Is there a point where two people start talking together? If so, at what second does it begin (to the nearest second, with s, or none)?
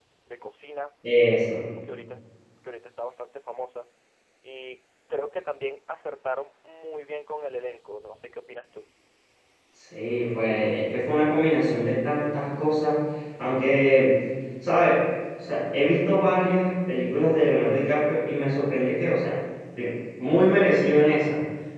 none